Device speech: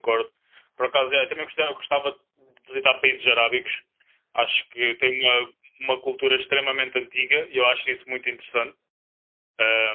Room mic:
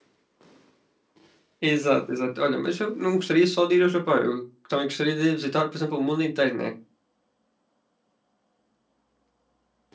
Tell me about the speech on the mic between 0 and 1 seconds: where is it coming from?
neither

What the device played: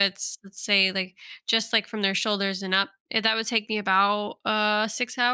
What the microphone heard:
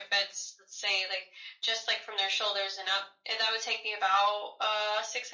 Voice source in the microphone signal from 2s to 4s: echo only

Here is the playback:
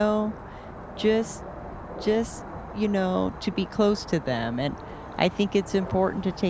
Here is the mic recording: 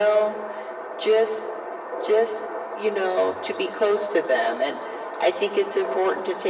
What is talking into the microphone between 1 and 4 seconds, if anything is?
echo only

